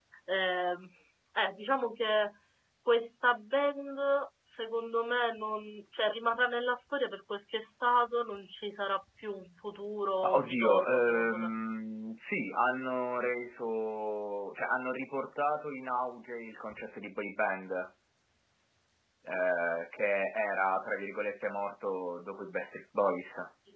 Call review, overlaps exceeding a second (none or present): present